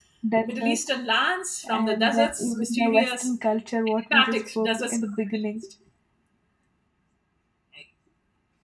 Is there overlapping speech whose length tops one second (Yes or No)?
Yes